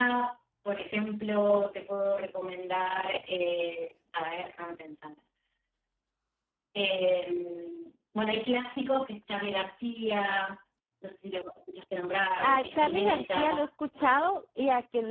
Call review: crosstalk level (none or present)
present